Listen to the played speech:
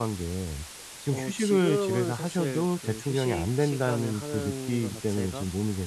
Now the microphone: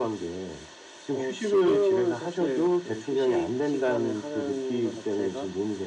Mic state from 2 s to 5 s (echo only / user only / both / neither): echo only